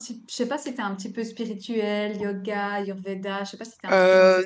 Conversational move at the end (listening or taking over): taking over